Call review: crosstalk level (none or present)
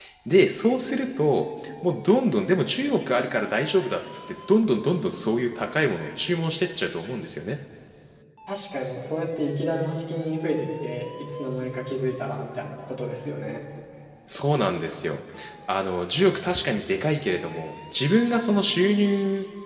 none